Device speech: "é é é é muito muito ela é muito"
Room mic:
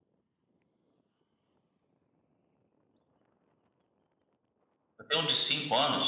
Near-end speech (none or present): present